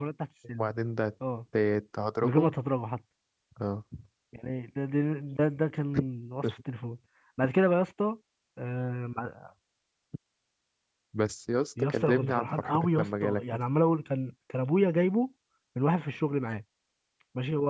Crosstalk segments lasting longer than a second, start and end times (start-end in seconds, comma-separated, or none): 11.8-13.6